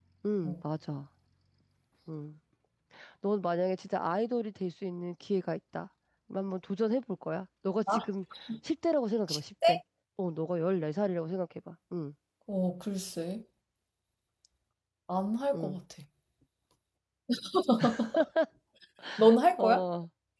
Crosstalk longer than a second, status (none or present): none